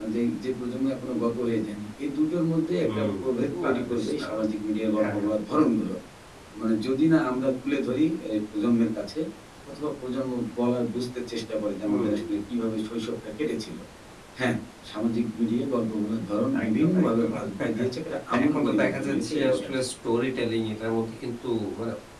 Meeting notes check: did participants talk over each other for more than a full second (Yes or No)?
Yes